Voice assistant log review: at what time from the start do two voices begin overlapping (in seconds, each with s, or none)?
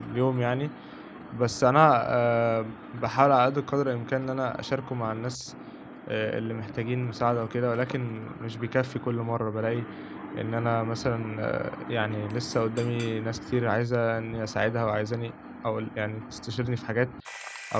none